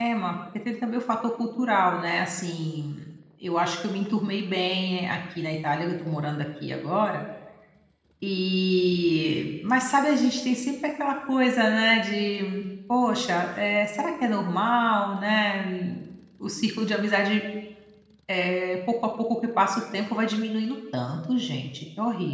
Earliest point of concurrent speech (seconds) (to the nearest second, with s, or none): none